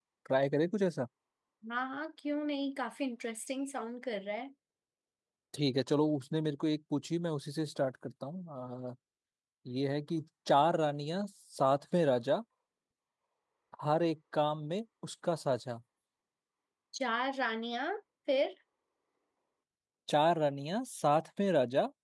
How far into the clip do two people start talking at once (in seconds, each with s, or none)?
none